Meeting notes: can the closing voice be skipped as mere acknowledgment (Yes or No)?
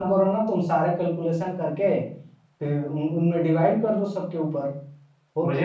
No